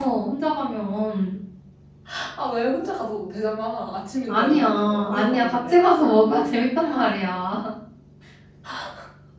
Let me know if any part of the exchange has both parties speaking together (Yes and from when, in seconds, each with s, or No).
Yes, from 4.3 s